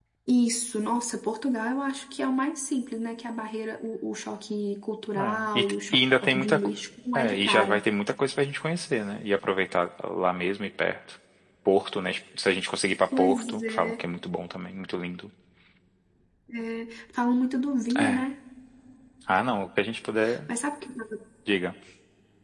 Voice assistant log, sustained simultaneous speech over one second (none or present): present